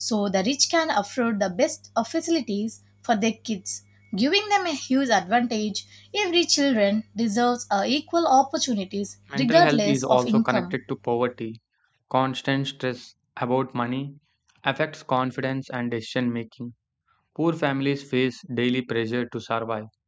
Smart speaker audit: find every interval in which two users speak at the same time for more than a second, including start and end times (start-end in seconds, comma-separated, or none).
9.3-10.8